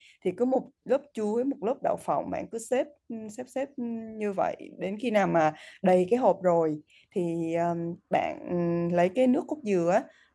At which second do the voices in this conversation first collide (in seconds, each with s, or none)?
none